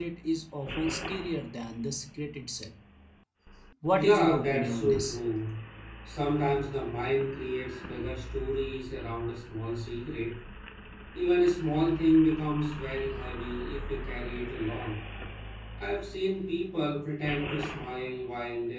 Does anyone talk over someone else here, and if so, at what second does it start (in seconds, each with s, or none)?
3.9 s